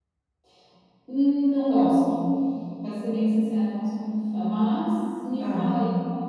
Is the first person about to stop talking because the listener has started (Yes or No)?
Yes